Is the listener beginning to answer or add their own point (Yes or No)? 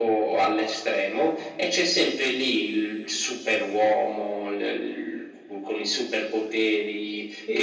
Yes